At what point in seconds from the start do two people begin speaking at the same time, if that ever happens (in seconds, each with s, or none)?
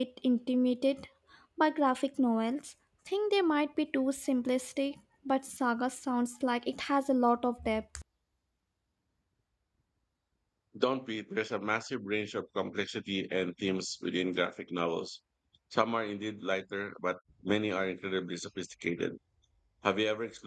none